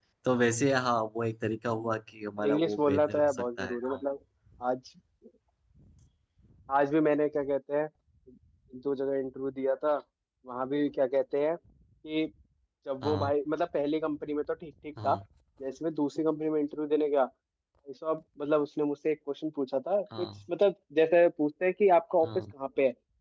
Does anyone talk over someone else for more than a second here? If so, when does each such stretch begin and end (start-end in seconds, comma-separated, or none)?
2.4-4.0